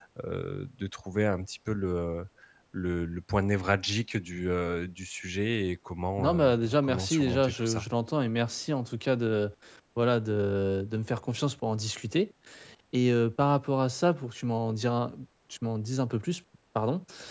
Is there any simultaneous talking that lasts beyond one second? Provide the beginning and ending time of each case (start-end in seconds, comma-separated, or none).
6.2-7.8